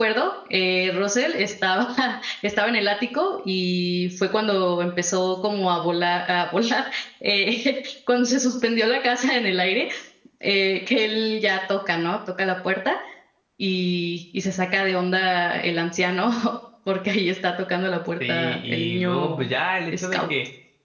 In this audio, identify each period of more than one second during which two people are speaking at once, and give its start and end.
18.3-19.5

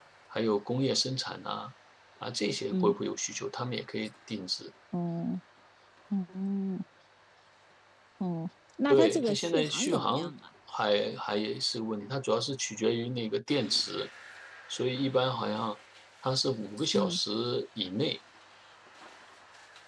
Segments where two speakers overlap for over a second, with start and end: 8.9-10.3

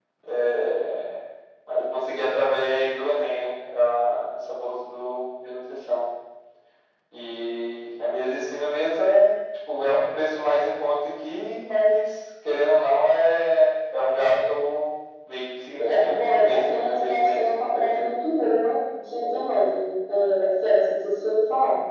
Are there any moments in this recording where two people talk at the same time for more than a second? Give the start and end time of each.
15.8-18.1

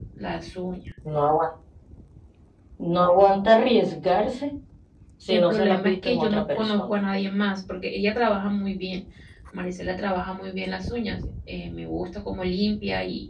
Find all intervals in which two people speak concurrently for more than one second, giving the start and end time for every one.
5.3-6.9

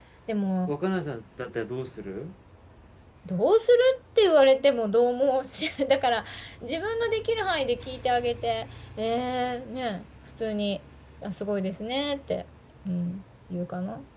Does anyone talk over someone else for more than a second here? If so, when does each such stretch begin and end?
none

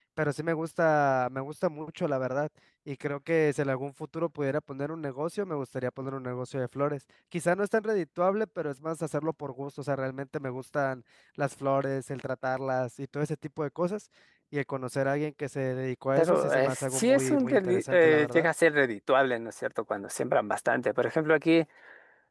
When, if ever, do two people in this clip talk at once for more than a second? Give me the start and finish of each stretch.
16.2-18.5

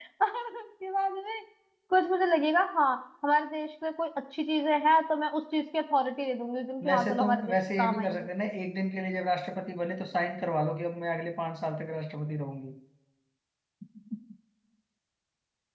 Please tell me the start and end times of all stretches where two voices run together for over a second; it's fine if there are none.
6.9-8.3

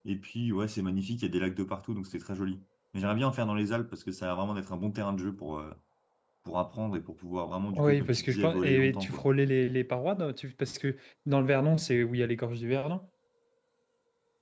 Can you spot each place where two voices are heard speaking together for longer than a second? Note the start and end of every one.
7.7-9.3

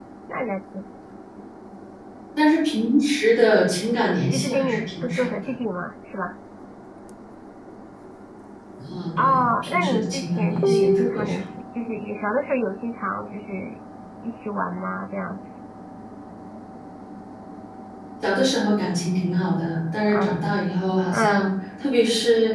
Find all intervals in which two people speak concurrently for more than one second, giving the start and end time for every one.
4.0-5.5, 9.2-11.4

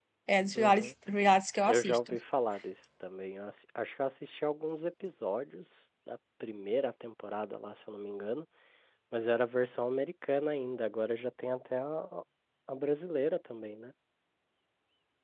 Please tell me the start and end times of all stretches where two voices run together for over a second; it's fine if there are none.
none

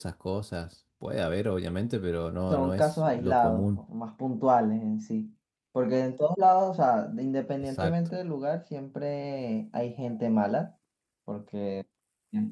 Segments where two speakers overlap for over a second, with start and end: 2.5-3.8

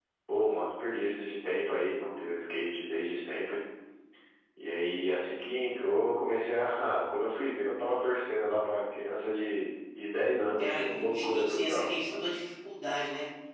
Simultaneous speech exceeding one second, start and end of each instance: 10.6-11.9

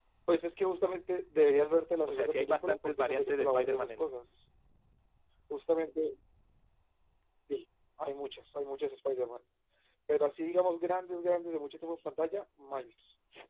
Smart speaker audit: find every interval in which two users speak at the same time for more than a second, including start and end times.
2.0-4.1

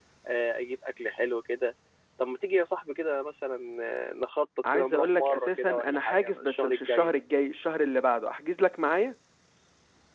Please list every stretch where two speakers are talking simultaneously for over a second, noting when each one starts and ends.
4.7-7.1

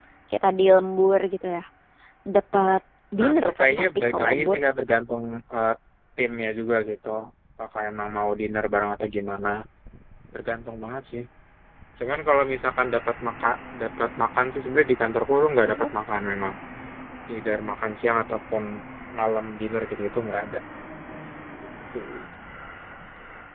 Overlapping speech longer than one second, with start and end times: 3.2-4.6

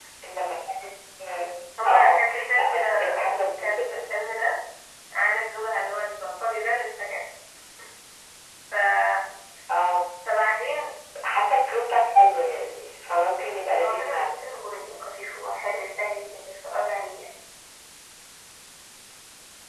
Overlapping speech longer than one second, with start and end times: 1.9-3.2

